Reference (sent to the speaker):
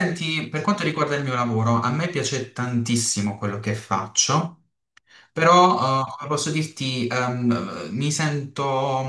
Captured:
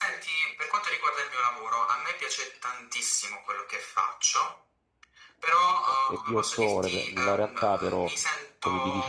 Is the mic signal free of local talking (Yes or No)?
No